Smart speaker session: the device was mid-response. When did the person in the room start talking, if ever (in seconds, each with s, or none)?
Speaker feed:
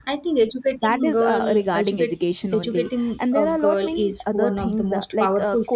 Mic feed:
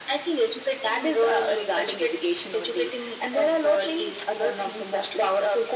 none